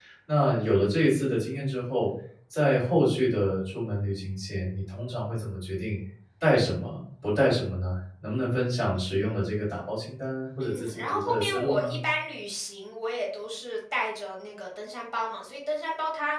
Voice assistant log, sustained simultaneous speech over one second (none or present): present